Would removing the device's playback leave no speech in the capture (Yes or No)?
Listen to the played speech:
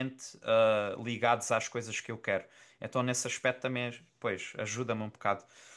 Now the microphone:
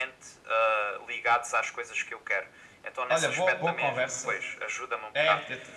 No